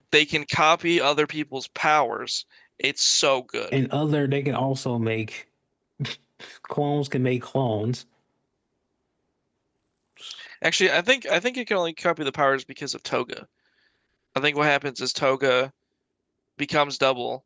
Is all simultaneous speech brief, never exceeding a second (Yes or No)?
Yes